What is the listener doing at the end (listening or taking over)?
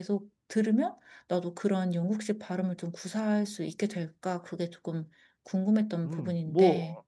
taking over